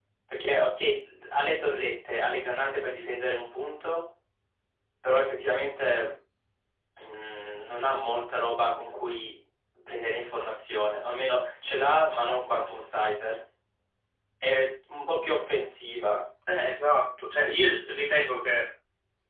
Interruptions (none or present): none